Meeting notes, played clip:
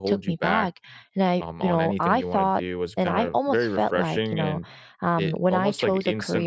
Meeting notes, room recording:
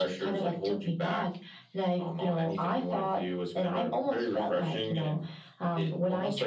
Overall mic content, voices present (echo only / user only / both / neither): echo only